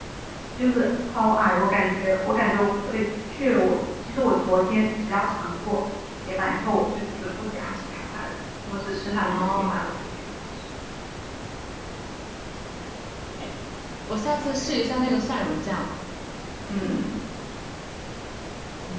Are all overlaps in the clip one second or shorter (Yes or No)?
Yes